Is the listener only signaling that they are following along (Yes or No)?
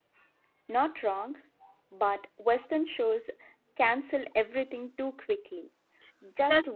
Yes